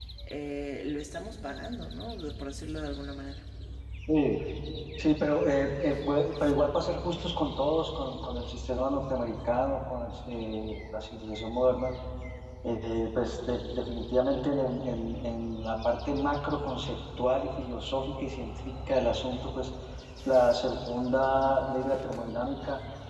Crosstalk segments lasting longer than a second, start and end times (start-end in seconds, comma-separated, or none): none